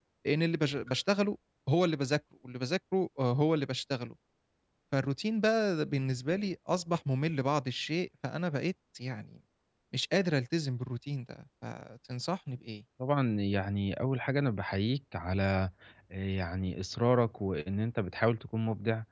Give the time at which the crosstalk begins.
none

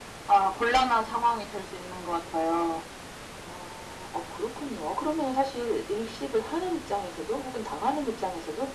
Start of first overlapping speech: none

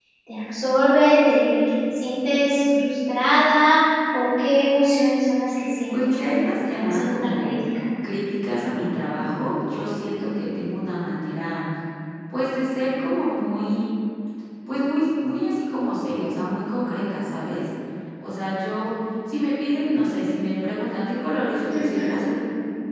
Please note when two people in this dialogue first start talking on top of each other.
5.9 s

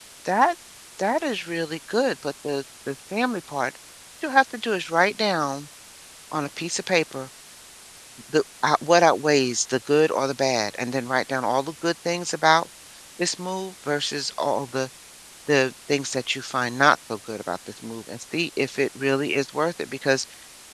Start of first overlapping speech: none

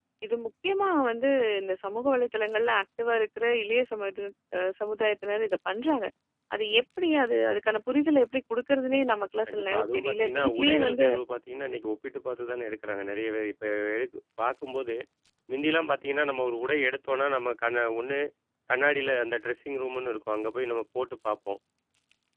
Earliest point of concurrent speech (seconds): 9.5 s

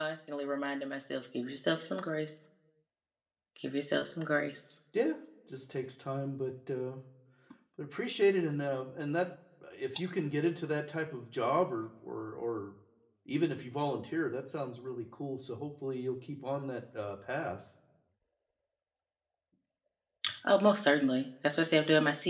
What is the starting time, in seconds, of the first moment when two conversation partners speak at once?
none

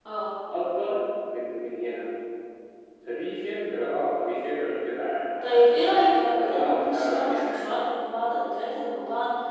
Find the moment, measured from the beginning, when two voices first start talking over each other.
5.4 s

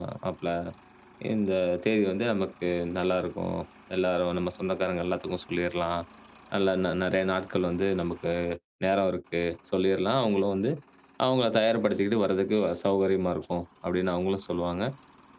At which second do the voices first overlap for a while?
none

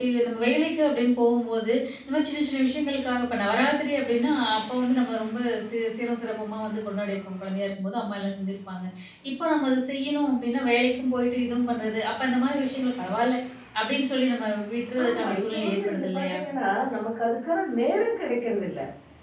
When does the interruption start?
15.0 s

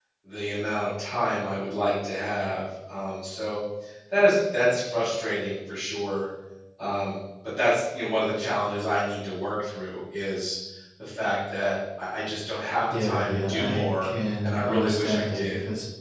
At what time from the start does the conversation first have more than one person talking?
12.9 s

